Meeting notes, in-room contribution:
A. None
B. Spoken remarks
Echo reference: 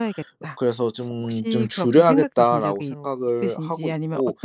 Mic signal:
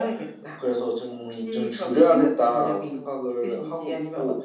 A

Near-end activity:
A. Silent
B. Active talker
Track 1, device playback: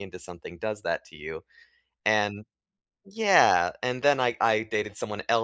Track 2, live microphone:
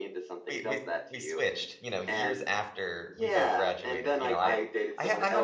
B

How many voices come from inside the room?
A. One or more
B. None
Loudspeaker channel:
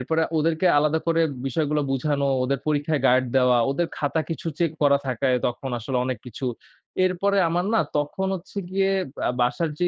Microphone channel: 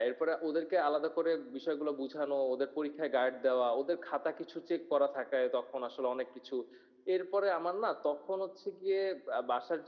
B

